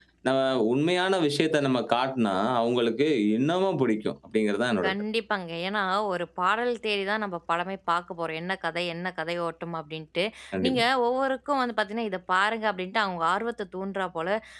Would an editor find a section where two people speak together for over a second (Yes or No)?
No